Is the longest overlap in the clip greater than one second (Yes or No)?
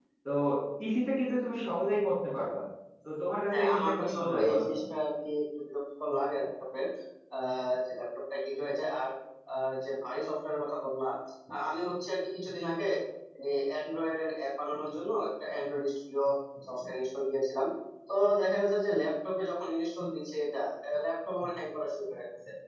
Yes